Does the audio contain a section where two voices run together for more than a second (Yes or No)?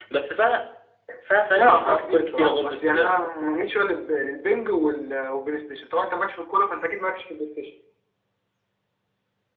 Yes